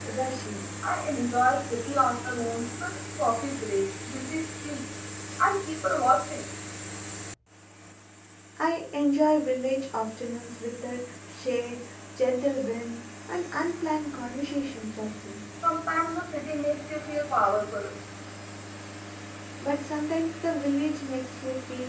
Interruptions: none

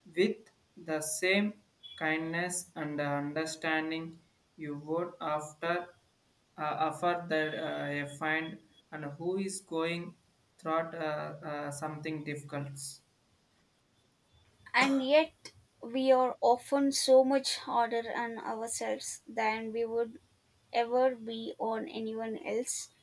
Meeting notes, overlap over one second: none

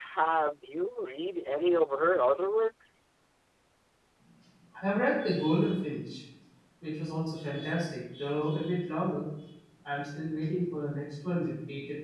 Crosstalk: none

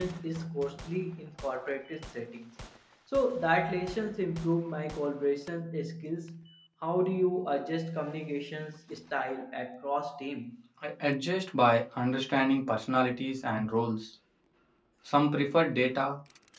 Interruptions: none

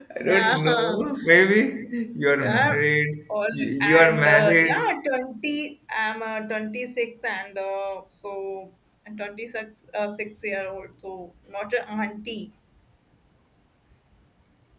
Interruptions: present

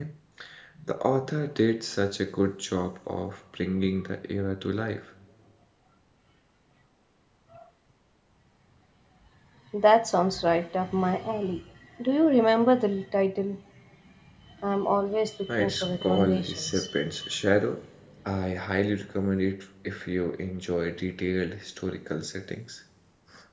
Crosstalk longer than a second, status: present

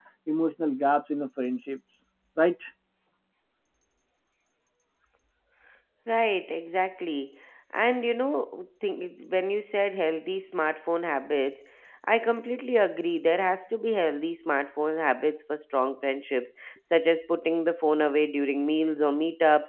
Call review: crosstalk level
none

